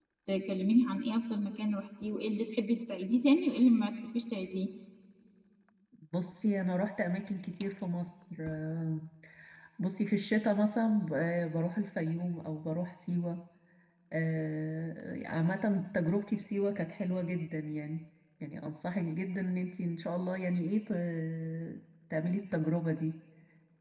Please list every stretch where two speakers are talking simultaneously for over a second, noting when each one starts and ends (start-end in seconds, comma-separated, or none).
none